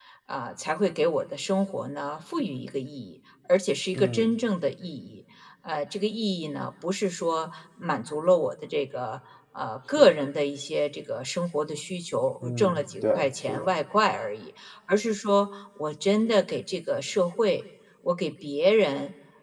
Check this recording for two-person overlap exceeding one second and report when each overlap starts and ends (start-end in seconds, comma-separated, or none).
12.4-13.7